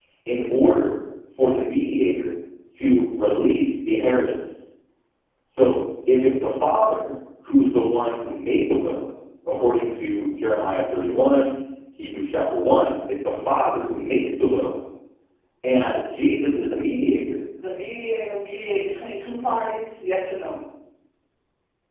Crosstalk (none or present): none